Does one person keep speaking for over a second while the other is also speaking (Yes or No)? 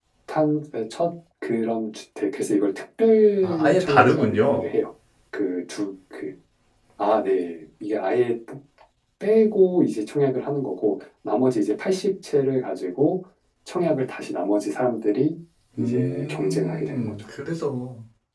Yes